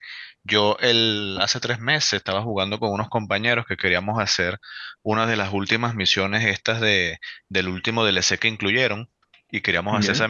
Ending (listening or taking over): listening